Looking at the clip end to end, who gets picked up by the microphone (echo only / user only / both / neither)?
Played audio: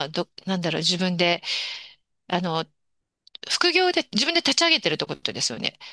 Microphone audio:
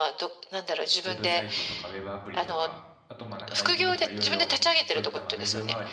both